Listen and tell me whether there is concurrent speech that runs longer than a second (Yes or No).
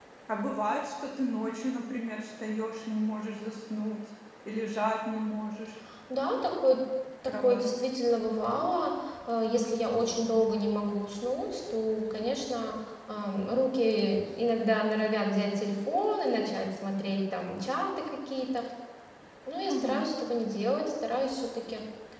No